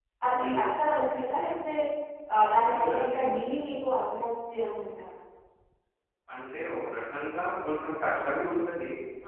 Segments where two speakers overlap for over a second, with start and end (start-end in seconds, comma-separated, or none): none